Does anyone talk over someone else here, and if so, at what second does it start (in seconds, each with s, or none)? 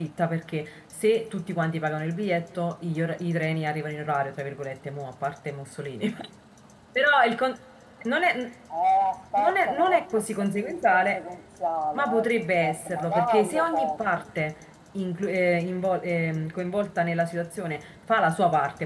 9.4 s